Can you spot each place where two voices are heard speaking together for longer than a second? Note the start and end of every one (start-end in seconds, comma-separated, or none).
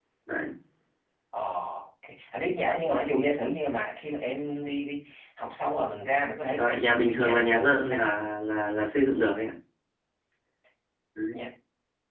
6.6-8.0